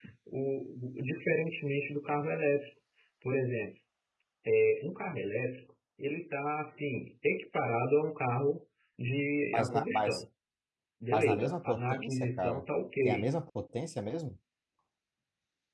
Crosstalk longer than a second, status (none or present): present